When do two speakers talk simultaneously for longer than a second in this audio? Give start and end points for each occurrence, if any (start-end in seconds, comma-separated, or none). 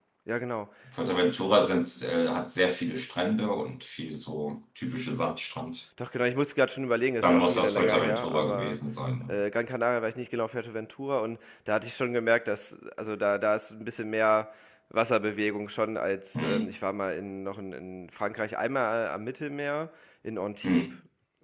7.2-8.8